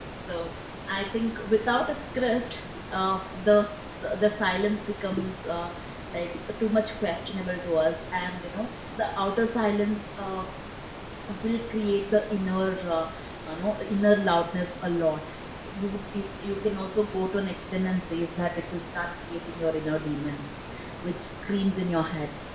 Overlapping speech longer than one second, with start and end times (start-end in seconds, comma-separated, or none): none